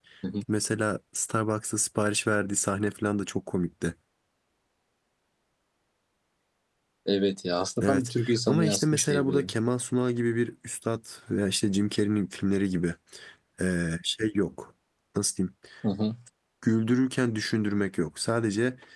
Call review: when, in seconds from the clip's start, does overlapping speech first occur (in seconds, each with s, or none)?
7.8 s